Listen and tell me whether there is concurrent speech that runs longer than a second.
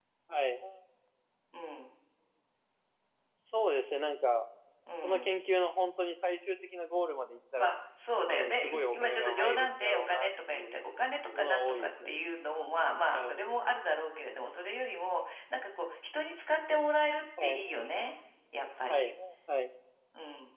Yes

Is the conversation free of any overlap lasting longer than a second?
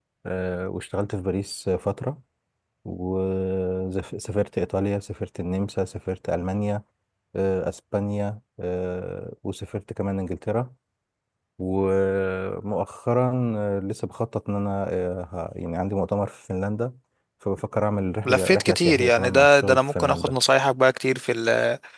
No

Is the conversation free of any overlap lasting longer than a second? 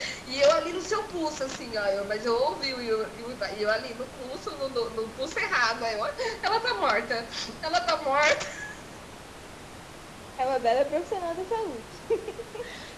Yes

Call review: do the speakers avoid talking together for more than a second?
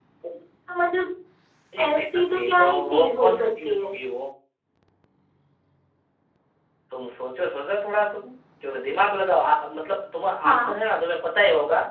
No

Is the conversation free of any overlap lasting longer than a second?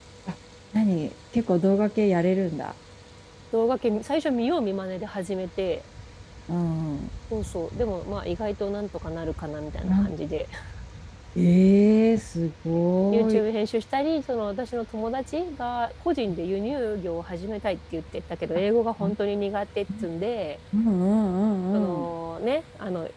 Yes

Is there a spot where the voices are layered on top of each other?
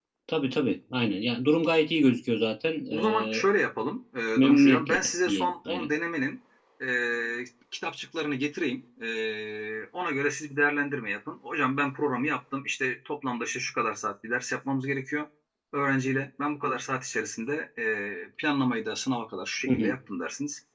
Yes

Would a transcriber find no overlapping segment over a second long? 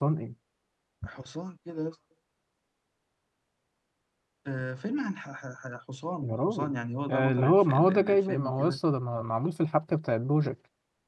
No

